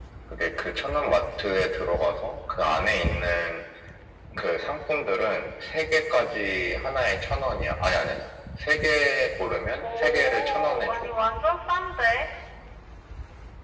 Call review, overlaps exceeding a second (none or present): present